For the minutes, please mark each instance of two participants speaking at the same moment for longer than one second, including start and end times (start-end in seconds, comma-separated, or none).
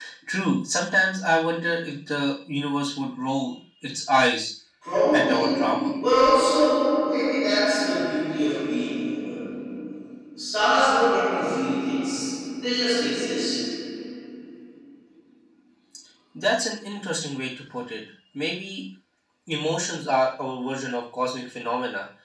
none